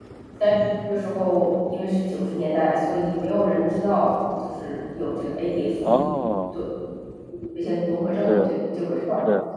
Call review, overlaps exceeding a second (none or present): none